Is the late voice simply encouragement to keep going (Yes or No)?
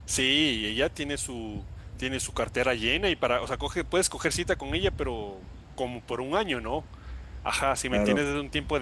Yes